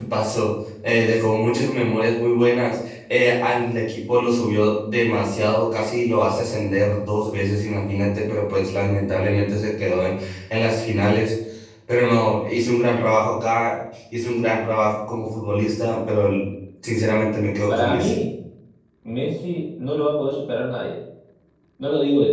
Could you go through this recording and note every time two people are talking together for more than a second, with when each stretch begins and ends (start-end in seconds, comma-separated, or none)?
none